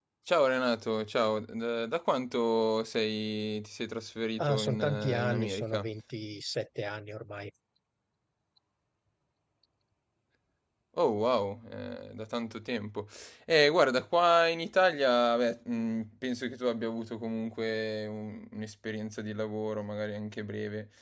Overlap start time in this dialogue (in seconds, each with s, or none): 4.4 s